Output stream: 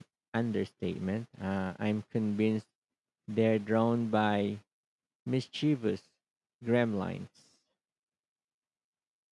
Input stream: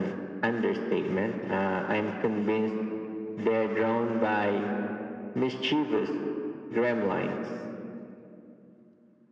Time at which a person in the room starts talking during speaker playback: none

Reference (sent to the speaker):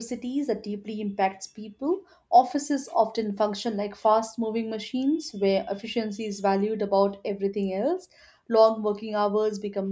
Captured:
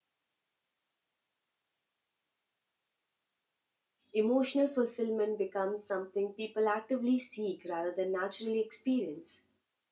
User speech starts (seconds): 4 s

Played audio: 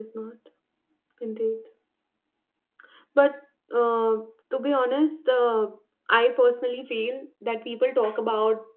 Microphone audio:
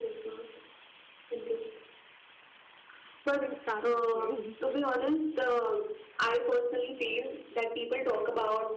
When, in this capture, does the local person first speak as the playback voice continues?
3 s

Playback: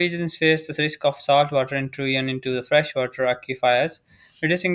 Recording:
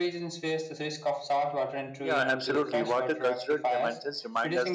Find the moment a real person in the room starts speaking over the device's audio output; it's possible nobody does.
2 s

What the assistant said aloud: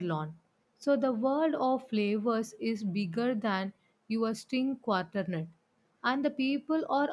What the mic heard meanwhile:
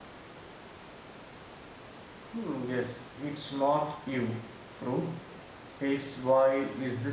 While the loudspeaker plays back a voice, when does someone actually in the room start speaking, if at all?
2 s

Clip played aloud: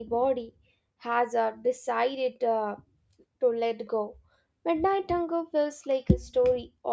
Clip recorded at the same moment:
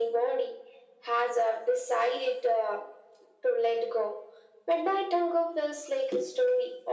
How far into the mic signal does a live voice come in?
none

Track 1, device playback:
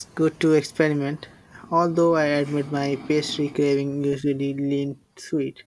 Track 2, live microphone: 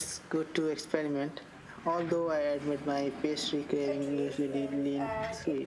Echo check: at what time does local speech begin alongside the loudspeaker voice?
4 s

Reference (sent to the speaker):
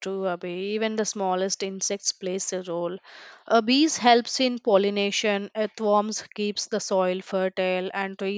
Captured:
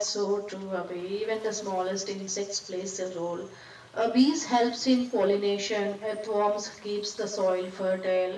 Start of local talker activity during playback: none

